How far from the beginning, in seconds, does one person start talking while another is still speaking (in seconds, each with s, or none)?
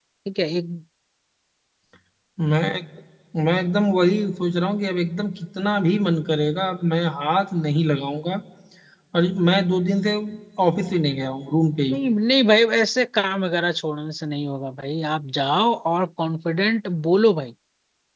none